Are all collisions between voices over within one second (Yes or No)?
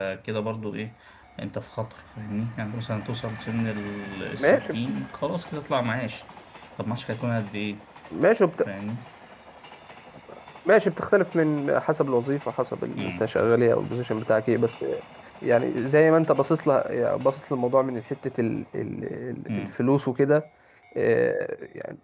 Yes